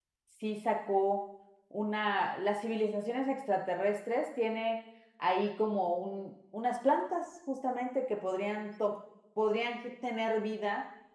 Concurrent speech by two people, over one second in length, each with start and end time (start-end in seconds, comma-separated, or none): none